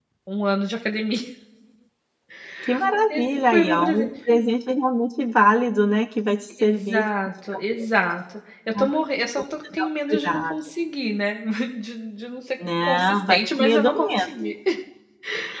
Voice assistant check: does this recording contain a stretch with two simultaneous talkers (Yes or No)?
Yes